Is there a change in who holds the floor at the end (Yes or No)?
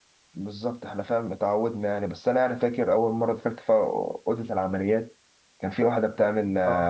No